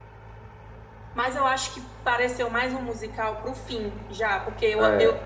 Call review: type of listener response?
listening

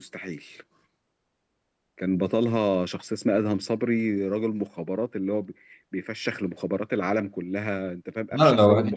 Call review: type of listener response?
taking over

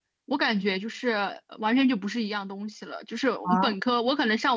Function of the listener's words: listening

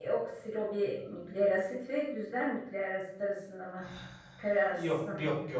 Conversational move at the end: taking over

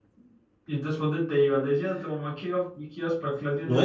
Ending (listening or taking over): taking over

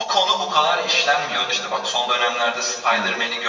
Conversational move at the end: listening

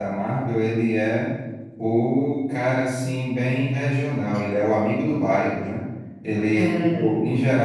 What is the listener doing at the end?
listening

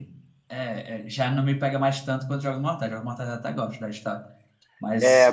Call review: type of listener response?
taking over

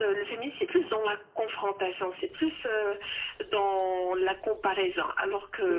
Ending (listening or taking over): taking over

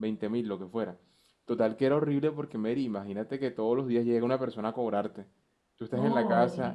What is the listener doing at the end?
listening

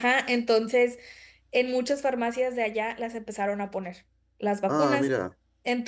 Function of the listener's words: listening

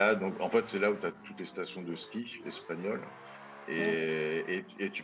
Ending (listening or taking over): listening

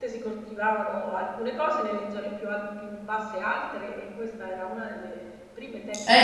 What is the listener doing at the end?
taking over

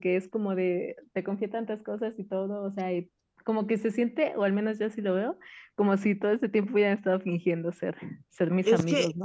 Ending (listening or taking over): taking over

